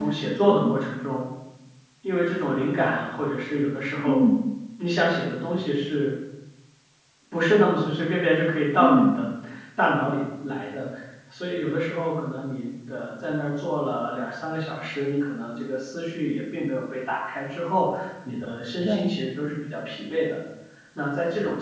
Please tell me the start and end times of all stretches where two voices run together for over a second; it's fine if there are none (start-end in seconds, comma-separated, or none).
none